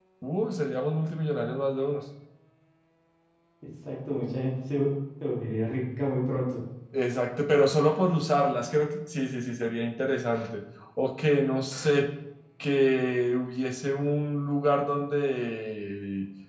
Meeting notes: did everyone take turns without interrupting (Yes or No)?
Yes